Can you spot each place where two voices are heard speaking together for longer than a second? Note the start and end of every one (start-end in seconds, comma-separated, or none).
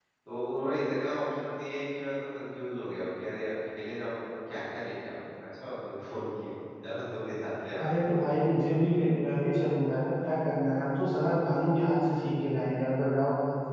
none